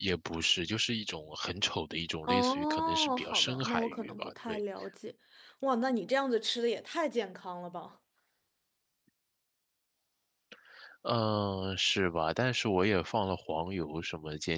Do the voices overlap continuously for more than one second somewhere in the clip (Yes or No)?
Yes